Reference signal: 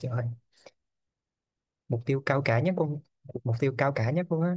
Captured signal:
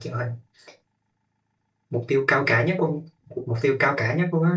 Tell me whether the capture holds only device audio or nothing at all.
Yes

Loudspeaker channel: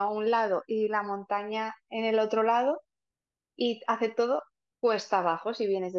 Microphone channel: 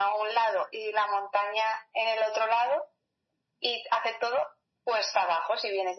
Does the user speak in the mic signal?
No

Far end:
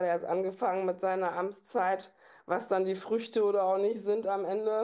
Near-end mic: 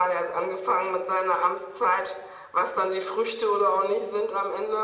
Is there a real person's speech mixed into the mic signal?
No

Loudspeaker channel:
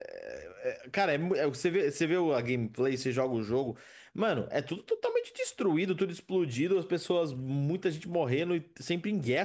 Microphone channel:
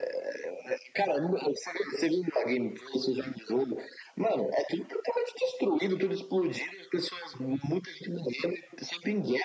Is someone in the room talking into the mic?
No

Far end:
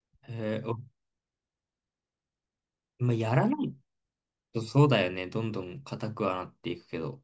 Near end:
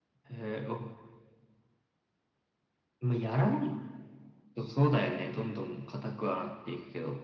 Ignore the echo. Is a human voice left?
No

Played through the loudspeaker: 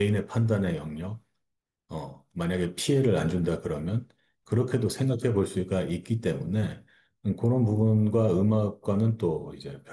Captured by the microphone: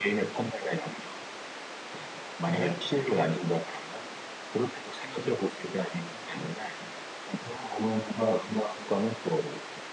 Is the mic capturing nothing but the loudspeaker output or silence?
No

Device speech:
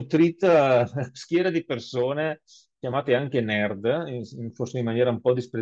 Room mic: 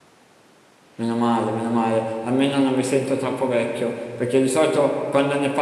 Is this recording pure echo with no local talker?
No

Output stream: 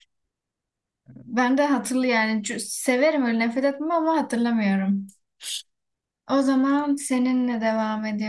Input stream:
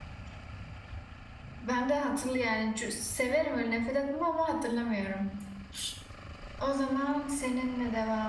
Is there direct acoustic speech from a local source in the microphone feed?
No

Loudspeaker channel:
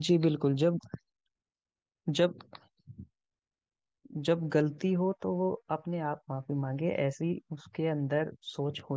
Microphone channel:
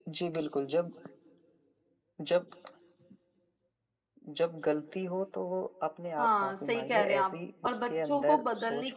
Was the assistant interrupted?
Yes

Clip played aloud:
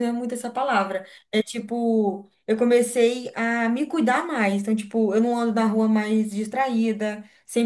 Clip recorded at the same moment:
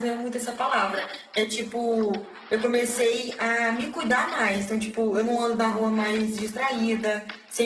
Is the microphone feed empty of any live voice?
Yes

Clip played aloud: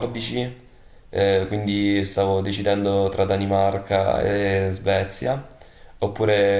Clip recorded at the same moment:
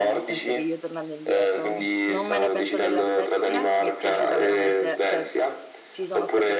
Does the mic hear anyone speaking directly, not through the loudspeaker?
Yes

